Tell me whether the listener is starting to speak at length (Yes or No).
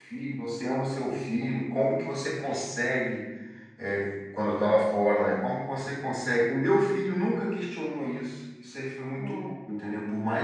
No